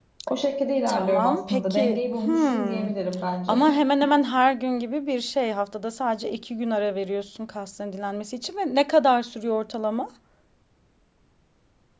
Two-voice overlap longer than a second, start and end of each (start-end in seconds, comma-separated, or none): 0.9-2.9